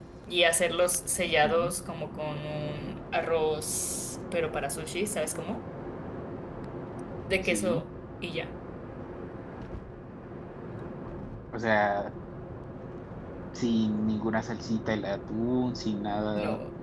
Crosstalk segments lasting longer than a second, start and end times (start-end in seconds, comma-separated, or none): none